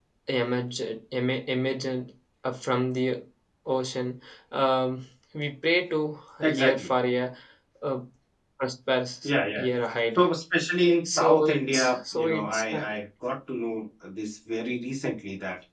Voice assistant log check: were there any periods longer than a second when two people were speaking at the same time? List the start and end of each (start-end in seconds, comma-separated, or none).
11.0-12.6